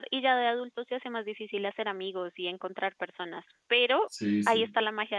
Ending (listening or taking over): listening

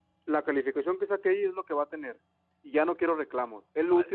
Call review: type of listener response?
listening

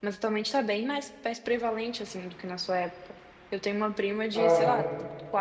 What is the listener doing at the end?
listening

